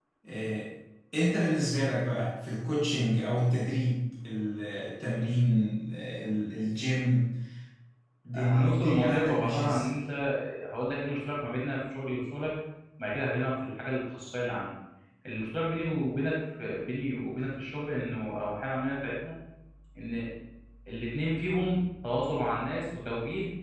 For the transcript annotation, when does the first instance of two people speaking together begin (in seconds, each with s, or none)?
8.3 s